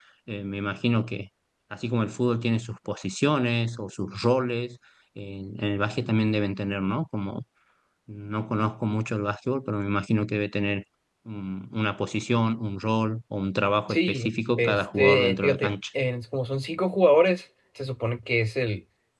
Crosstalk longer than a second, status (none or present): present